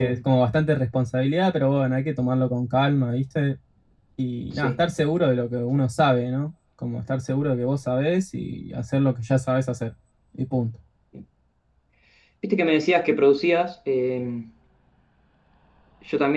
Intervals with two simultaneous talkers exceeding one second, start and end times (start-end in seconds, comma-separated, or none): none